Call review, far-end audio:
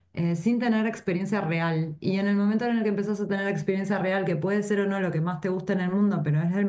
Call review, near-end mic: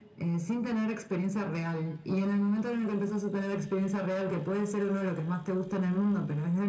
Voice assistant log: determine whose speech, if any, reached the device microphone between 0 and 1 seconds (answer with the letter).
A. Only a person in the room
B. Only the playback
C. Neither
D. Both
B